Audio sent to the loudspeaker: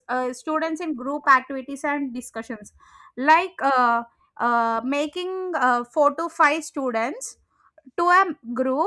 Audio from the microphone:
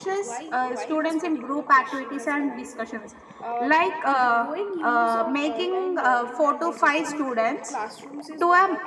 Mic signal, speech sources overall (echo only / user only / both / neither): both